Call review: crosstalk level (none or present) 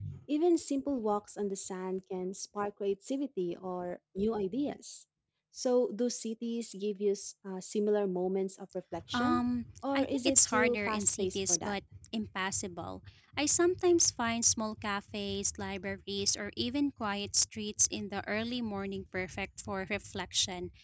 present